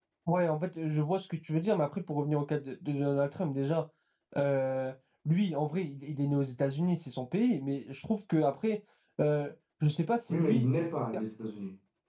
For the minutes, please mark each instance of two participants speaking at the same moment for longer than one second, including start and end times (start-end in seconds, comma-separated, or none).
none